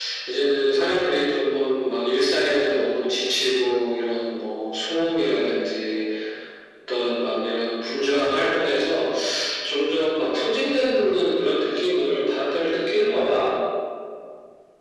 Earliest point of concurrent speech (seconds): none

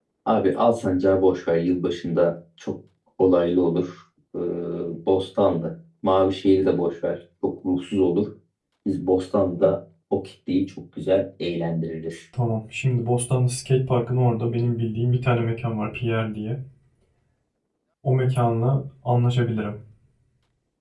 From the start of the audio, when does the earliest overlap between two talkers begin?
none

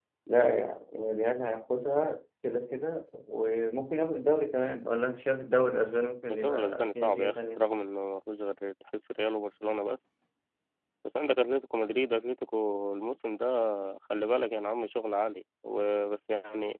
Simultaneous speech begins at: 6 s

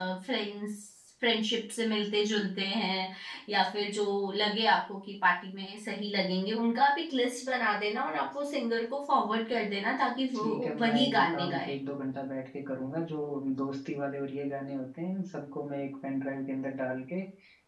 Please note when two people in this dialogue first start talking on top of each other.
10 s

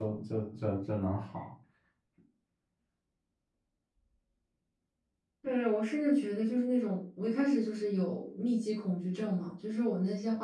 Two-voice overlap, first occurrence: none

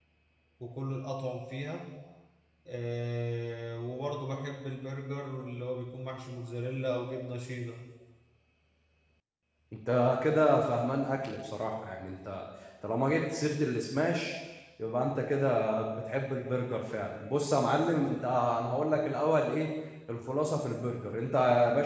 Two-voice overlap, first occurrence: none

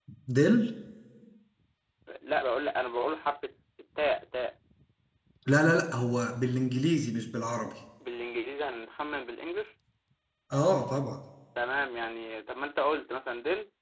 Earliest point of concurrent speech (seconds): none

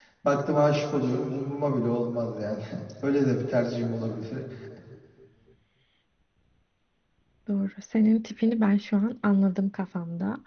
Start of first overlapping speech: none

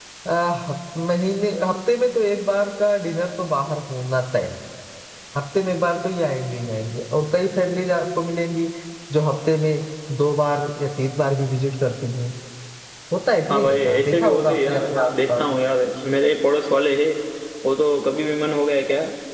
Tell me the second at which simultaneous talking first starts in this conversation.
13 s

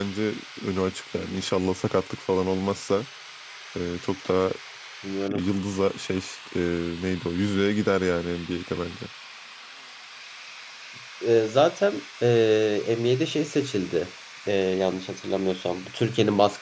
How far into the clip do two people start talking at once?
none

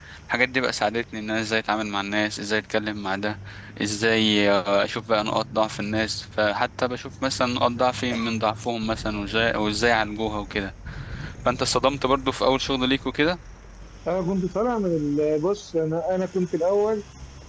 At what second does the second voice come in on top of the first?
none

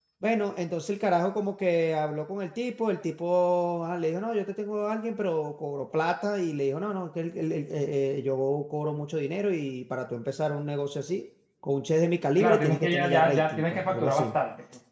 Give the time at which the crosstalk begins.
12 s

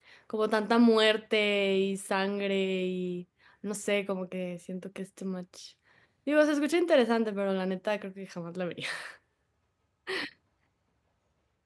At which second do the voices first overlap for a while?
none

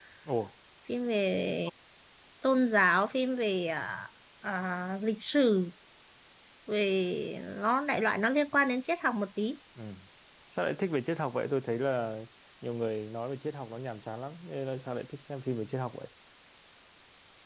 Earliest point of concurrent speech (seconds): none

